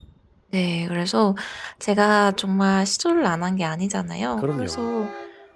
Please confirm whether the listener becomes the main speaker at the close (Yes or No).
No